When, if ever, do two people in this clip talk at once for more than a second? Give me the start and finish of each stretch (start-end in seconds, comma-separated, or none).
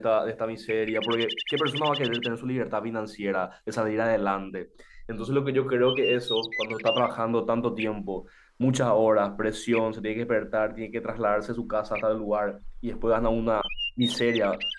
none